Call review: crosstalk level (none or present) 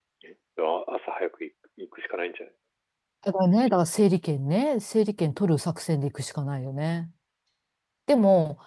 none